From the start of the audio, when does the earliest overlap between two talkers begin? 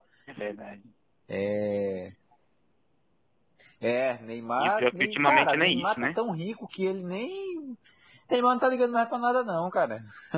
4.6 s

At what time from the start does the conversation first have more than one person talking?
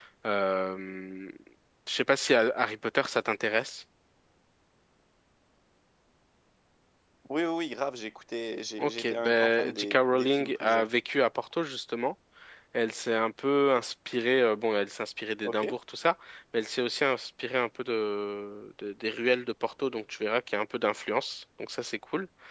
8.8 s

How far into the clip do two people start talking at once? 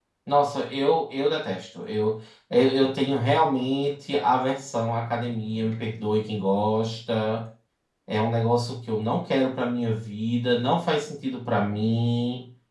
none

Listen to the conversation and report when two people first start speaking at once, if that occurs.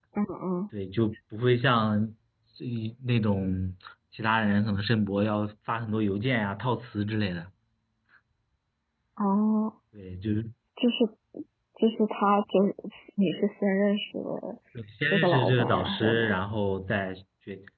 15.1 s

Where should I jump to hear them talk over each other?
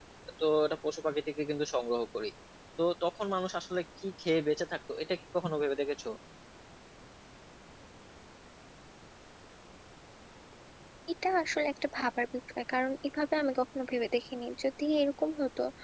none

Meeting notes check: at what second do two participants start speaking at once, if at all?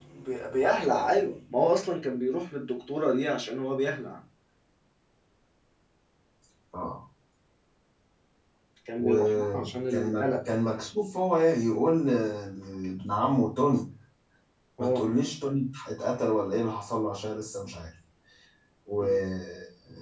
9.0 s

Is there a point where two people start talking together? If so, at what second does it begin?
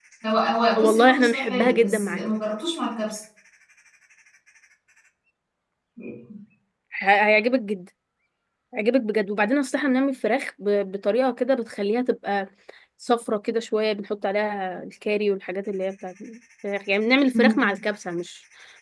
0.8 s

